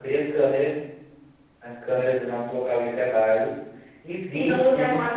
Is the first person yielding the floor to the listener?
Yes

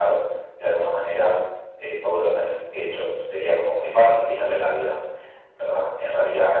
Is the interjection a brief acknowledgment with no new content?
Yes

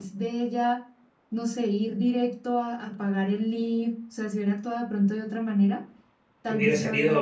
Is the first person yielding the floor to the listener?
Yes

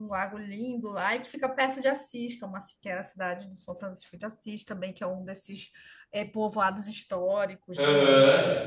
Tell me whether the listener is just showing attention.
Yes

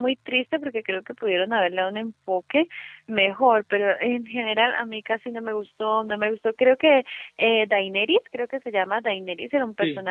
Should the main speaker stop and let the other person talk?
No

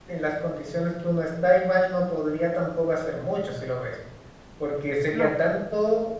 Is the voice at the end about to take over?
No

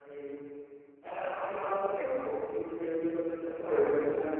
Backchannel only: Yes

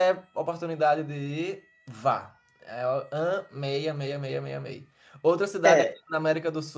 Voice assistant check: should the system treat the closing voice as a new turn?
No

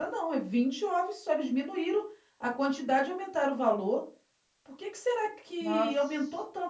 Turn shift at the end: No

